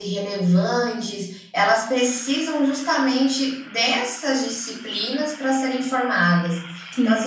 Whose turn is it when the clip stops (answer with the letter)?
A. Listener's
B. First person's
B